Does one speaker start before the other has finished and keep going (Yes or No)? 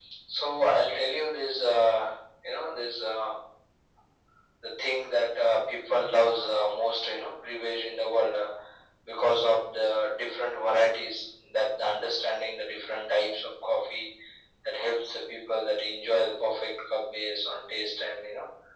No